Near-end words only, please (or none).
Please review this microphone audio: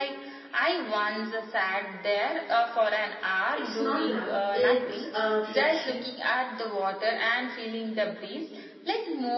it's not loud it's uh, flashy